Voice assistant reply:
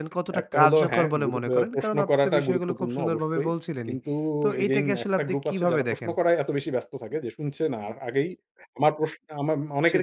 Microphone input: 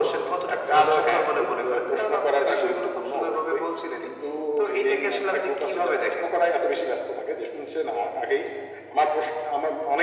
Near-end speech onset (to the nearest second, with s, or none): none